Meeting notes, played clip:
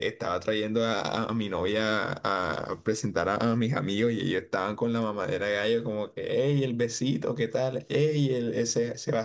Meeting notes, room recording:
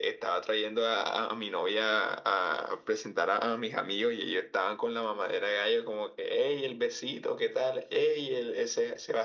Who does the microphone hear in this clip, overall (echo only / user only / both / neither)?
echo only